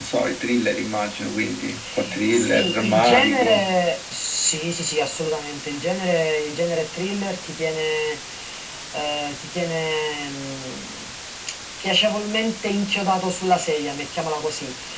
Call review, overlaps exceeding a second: present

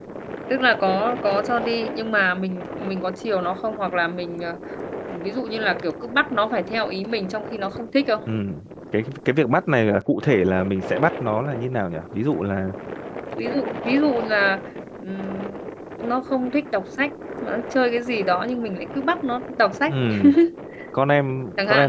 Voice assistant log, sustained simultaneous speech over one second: none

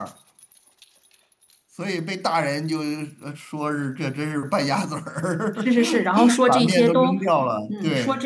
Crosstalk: present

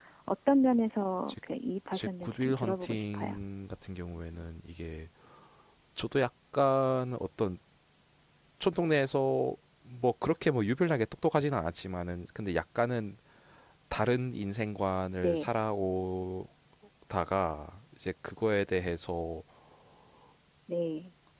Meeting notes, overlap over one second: present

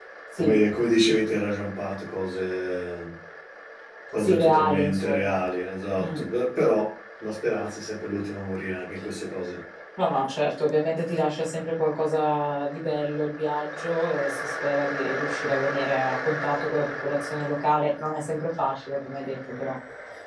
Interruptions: present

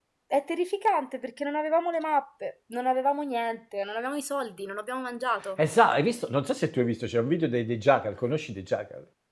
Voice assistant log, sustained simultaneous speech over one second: none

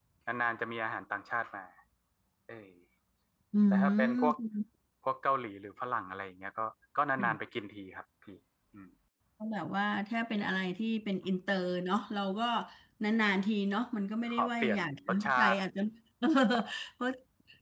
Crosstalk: present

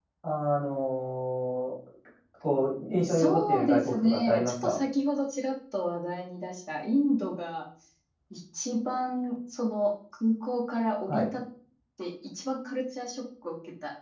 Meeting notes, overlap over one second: present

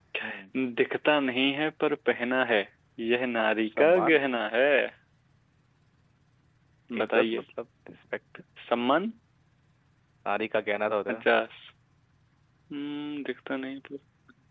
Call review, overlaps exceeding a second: none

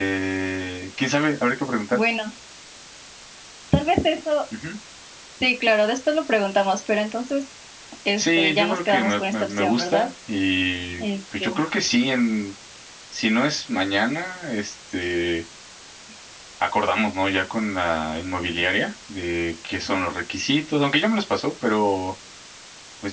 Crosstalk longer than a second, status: present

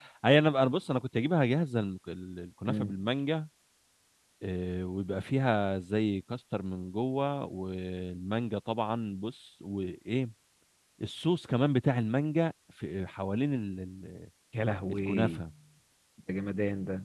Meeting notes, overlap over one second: none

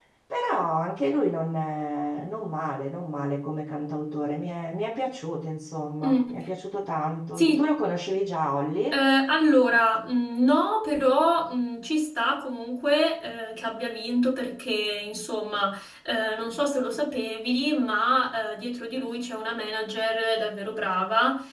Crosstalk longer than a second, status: none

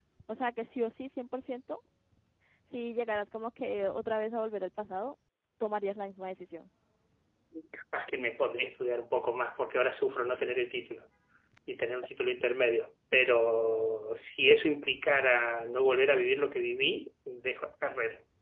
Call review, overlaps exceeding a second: none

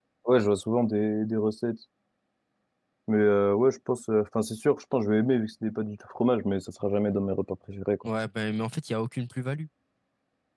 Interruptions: none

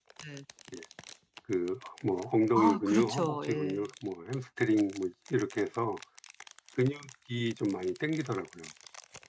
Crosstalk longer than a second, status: present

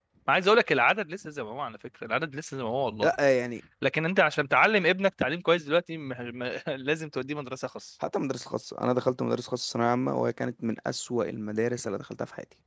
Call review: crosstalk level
none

